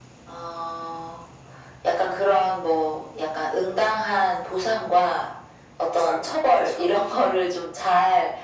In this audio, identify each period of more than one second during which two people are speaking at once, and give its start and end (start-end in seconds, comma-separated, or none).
5.9-7.4